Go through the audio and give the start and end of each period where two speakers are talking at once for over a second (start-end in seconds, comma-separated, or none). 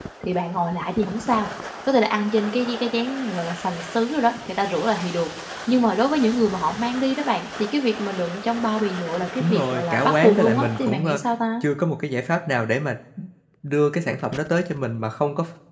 9.4-11.2